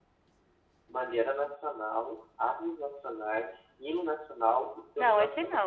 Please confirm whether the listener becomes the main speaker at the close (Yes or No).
Yes